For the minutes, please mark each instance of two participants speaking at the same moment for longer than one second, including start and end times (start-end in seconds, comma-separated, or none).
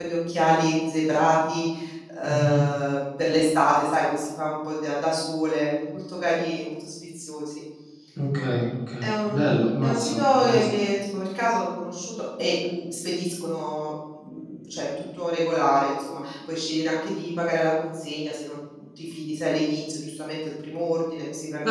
9.0-10.6